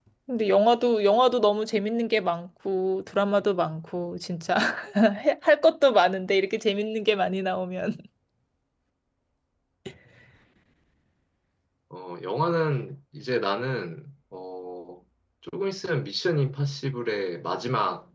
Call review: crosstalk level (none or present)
none